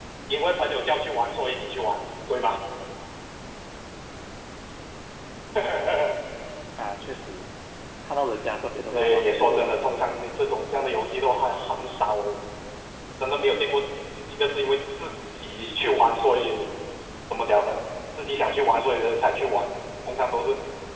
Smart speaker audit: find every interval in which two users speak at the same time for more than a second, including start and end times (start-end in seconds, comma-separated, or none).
8.9-10.2